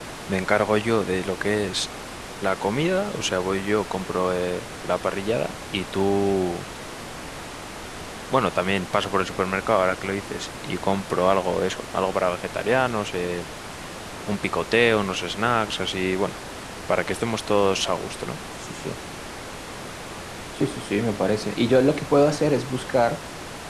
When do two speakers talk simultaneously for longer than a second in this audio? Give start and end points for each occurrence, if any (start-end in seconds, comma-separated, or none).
none